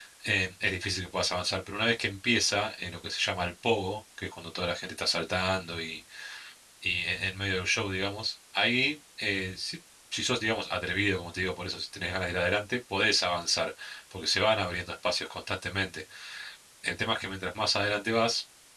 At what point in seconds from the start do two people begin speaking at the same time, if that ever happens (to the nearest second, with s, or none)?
none